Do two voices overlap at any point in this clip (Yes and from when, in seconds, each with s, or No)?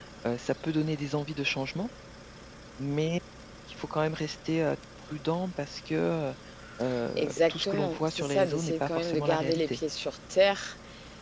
Yes, from 7.2 s